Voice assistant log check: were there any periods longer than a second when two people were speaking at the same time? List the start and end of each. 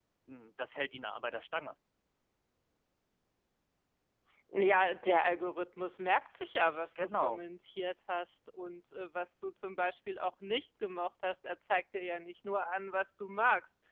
none

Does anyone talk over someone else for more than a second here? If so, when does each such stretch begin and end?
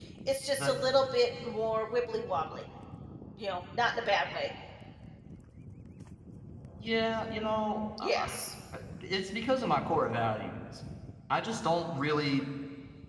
none

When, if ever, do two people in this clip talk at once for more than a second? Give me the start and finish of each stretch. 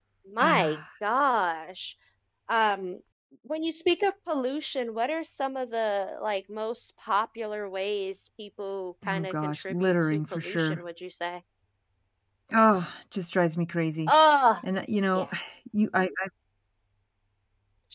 9.1-10.8

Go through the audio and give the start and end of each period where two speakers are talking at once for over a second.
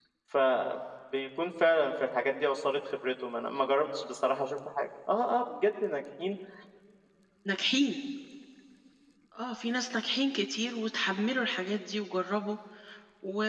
none

